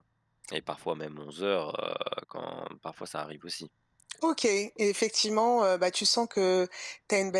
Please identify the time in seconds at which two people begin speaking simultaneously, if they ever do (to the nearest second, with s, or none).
none